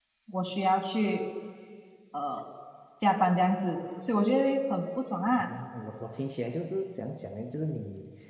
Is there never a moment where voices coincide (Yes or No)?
Yes